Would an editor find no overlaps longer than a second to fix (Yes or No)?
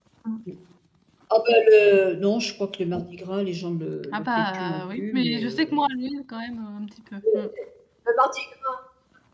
No